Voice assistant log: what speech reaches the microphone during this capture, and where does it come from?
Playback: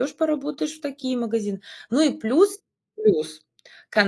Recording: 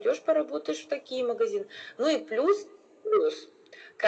echo only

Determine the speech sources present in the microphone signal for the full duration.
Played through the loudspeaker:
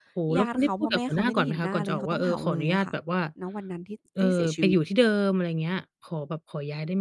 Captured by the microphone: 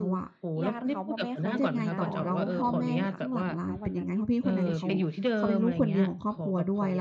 both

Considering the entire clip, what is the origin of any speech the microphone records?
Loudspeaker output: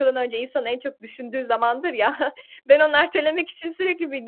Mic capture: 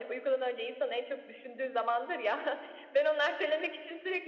echo only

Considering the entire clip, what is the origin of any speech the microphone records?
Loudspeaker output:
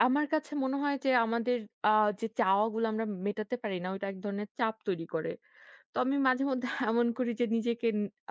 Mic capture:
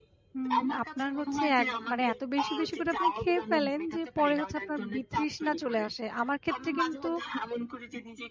both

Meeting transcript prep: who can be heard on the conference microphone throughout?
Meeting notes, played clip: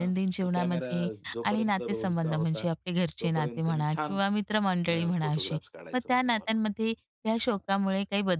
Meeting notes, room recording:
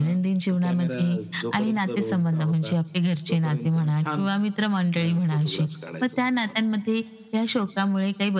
echo only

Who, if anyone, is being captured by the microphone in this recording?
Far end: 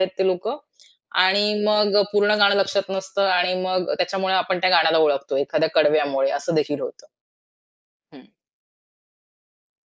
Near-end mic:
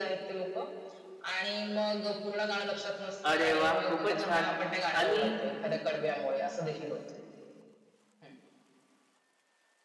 both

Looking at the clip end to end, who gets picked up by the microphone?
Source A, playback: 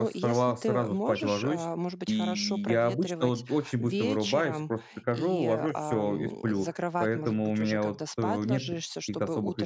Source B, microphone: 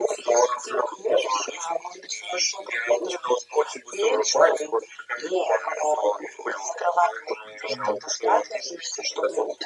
both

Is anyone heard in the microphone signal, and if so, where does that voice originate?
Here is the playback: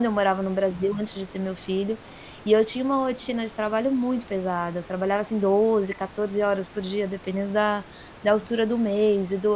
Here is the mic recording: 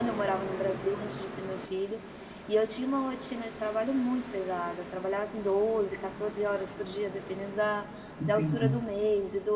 both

